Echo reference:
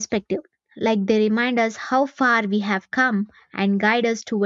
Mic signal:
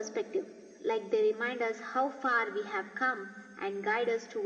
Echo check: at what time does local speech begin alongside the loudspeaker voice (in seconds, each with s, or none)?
none